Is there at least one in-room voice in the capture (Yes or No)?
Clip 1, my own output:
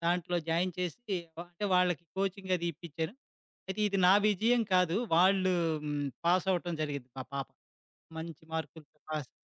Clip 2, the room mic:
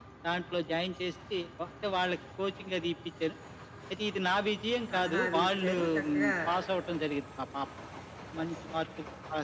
Yes